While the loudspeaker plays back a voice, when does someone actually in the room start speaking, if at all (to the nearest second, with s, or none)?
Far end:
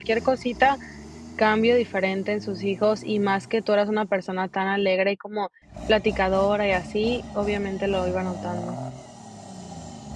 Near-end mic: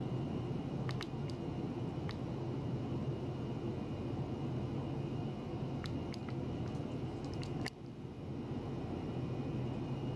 none